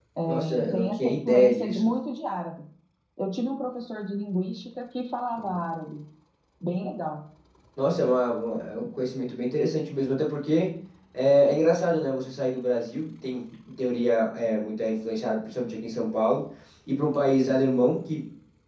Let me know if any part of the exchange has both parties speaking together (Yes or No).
Yes